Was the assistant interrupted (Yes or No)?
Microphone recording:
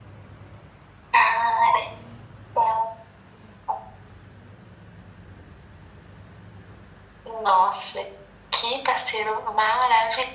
No